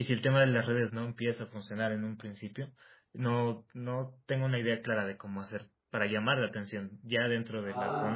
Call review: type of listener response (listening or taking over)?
taking over